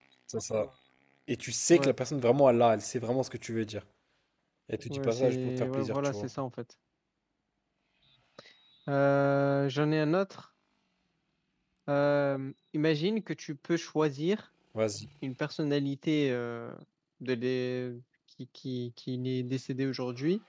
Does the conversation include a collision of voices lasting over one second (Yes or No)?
Yes